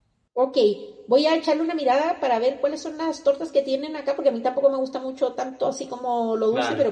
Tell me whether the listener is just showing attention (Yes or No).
Yes